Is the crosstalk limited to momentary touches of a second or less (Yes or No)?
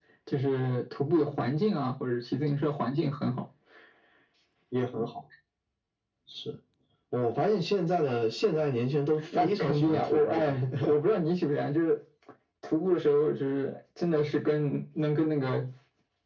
No